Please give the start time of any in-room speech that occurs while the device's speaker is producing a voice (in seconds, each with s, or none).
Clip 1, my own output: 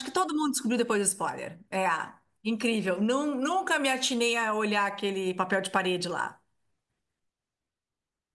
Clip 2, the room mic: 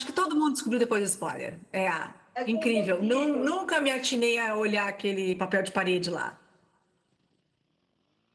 2.3 s